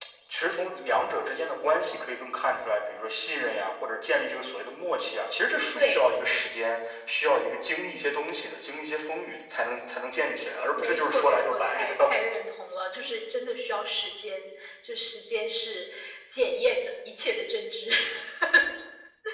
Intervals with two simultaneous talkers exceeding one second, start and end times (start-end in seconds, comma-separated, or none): 10.8-12.1